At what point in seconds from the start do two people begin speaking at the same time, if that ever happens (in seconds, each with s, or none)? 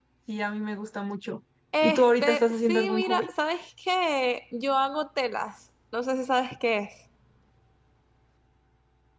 1.7 s